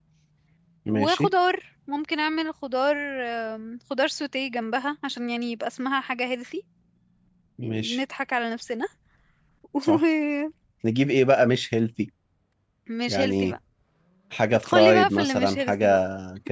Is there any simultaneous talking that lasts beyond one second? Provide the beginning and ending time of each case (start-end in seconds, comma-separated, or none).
14.5-15.9